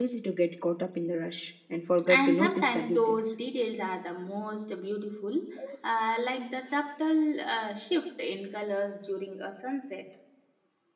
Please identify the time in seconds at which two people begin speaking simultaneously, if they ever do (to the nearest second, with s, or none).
2 s